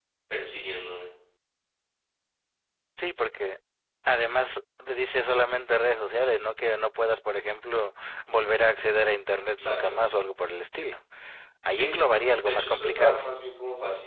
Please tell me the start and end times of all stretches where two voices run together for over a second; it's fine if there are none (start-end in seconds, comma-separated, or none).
11.7-13.2